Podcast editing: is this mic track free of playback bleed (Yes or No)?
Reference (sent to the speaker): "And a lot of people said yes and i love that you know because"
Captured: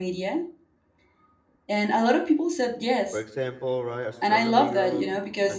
No